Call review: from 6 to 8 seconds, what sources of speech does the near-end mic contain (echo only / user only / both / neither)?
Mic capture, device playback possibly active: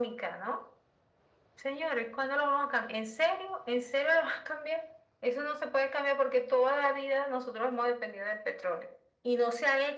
echo only